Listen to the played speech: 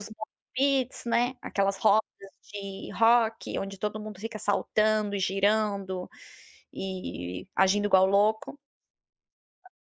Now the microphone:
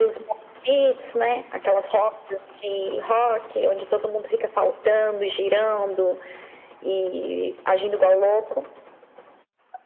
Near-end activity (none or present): none